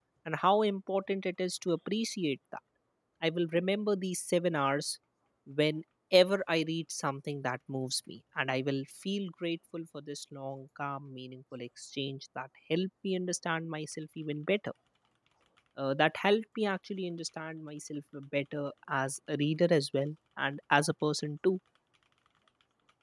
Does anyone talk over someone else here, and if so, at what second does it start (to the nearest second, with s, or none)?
none